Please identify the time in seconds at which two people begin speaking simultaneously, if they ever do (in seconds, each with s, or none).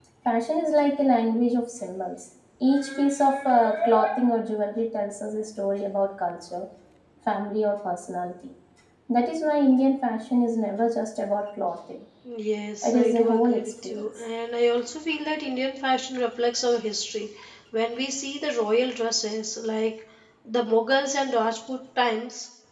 12.8 s